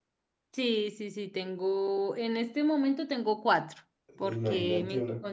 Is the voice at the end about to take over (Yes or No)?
Yes